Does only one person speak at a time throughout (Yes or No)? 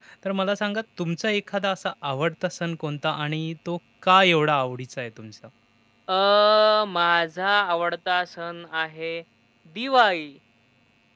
Yes